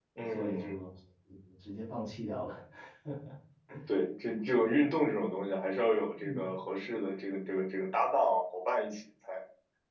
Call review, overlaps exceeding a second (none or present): none